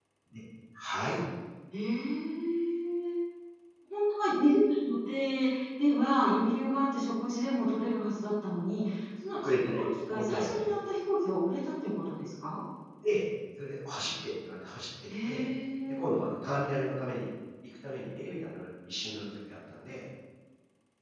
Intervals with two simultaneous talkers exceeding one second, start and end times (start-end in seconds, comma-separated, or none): 9.3-10.6